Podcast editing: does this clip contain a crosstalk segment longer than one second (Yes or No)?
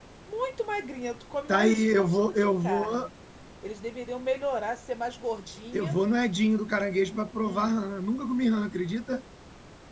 Yes